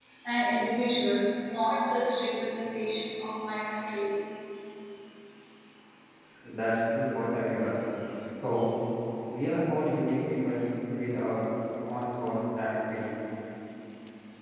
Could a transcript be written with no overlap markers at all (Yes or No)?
Yes